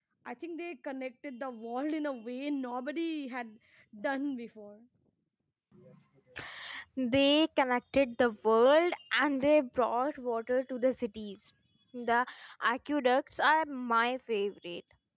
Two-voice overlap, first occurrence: none

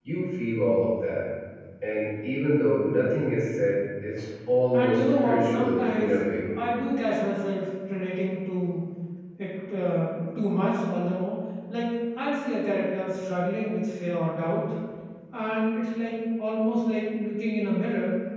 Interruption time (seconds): 5 s

